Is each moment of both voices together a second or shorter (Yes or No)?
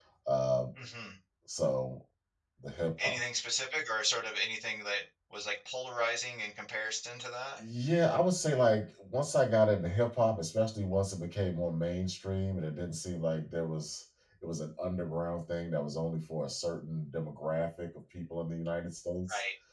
Yes